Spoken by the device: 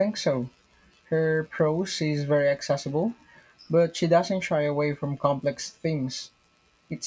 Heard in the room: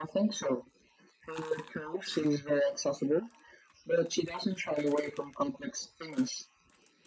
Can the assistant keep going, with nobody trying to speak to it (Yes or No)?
Yes